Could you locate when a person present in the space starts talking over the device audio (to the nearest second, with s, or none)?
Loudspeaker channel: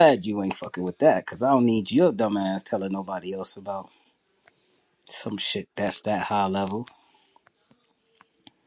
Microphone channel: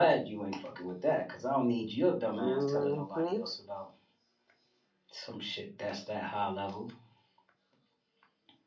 2 s